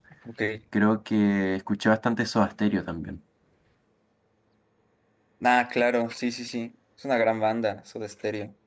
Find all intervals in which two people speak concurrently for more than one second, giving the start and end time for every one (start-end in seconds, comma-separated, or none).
none